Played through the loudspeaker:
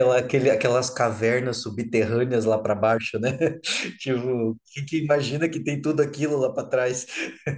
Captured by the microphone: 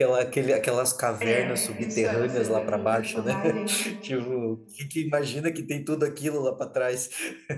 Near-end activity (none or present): present